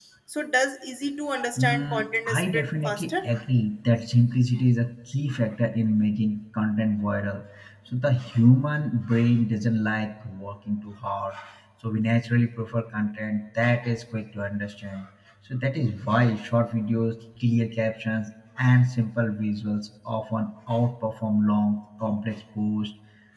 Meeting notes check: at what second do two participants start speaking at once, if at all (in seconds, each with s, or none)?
1.3 s